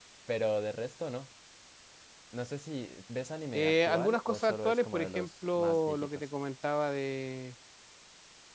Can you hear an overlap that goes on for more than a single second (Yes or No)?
Yes